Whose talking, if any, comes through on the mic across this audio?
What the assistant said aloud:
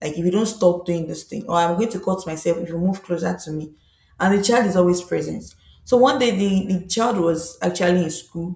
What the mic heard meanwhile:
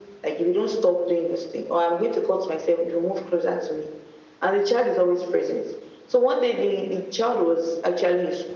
echo only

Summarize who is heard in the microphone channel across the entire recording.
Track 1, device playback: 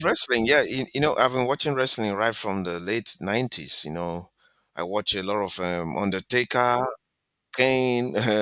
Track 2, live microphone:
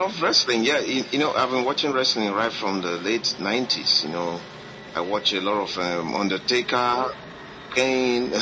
echo only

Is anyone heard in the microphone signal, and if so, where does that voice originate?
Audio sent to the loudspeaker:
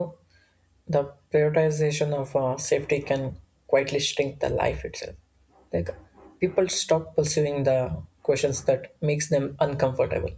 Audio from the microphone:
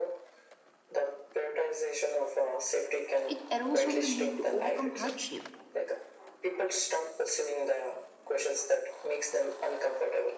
both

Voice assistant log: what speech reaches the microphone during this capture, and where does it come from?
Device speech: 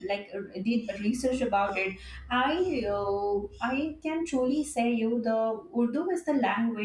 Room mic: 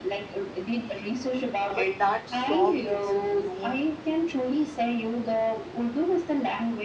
both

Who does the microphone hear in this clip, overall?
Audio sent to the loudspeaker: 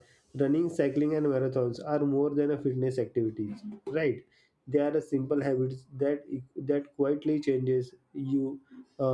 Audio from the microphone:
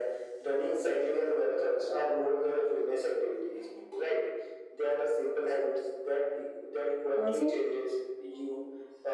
both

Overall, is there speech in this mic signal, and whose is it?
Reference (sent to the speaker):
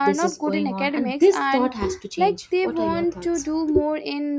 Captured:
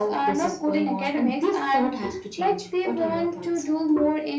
echo only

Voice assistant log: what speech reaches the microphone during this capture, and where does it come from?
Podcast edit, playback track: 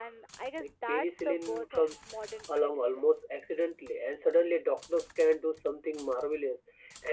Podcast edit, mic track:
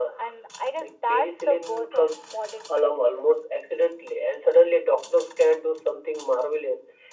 echo only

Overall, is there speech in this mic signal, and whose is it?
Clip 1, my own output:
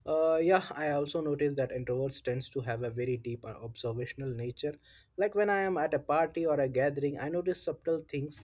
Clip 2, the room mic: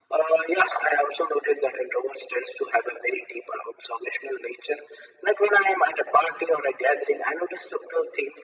echo only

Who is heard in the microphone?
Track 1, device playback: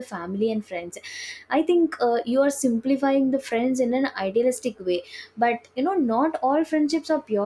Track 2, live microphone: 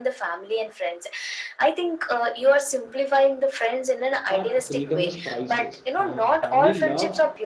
both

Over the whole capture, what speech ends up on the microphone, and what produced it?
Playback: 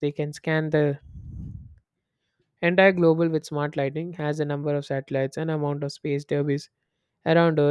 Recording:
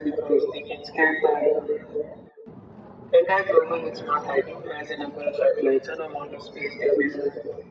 echo only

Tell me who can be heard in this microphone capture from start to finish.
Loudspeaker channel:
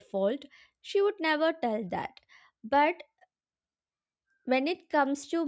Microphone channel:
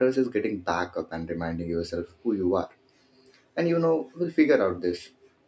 user only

